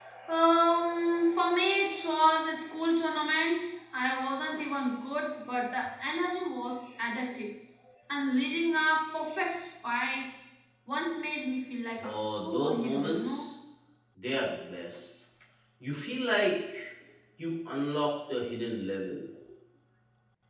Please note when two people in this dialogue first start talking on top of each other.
12.0 s

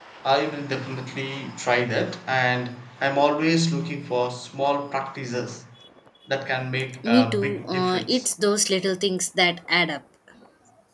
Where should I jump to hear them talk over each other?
7.0 s

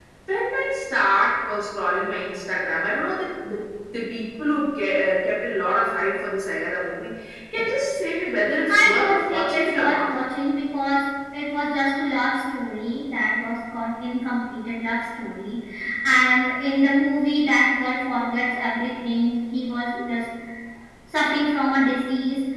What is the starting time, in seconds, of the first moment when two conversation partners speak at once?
8.8 s

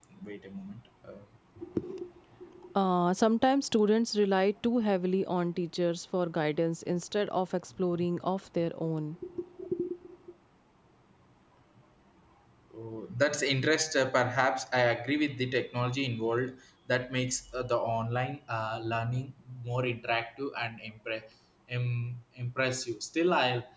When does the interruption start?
none

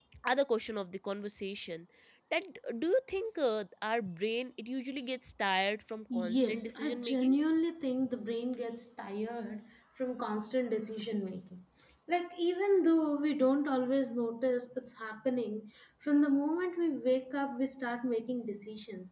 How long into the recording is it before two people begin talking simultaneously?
6.1 s

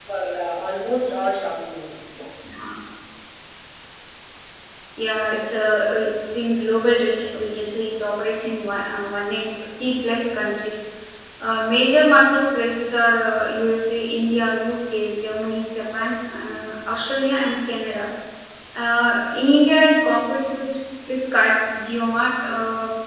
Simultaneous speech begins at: none

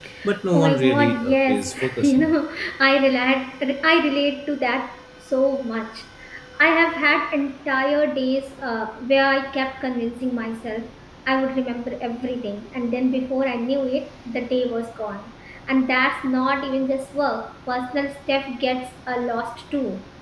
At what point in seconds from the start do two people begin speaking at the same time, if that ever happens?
0.5 s

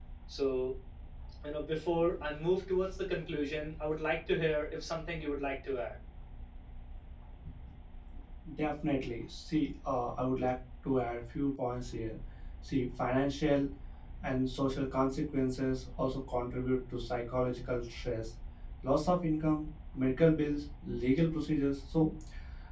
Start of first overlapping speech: none

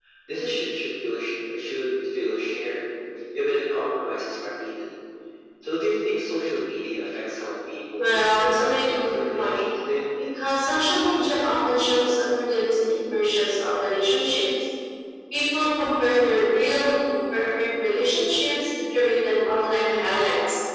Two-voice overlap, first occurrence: 8.0 s

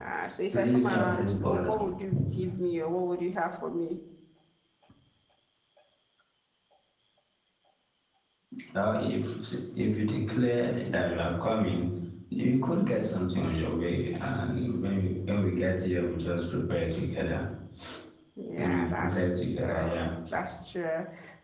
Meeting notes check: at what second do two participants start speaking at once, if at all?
0.5 s

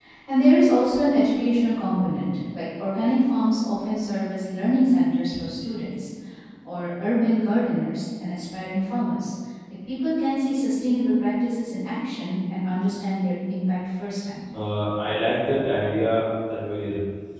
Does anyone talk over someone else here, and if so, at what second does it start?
none

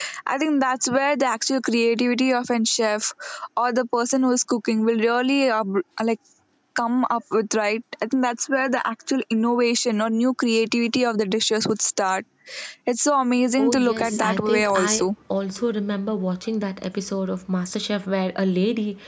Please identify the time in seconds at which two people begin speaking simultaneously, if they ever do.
13.6 s

